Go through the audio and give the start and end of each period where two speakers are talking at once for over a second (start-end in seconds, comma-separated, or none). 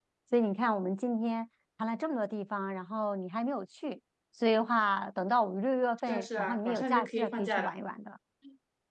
6.1-7.7